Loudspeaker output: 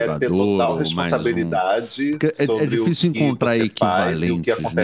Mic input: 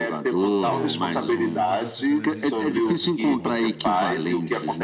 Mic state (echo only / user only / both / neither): both